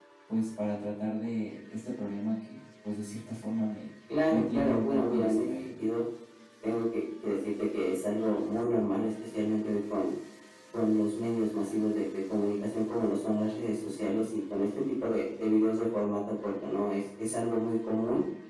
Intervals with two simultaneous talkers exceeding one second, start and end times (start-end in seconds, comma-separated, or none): 4.3-5.8